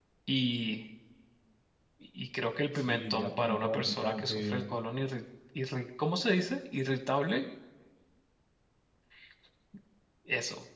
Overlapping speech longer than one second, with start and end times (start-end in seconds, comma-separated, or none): 2.8-4.6